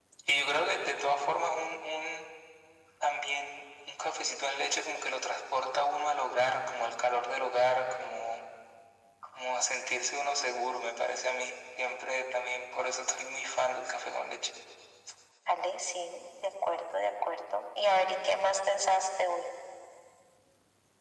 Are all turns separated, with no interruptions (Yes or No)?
Yes